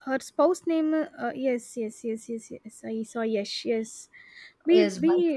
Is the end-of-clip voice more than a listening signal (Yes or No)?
No